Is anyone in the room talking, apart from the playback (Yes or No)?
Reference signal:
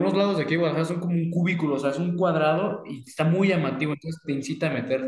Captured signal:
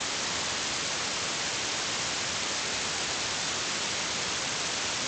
No